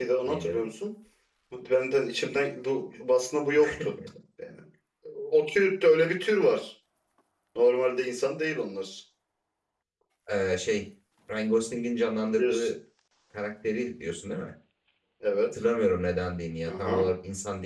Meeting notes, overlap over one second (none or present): none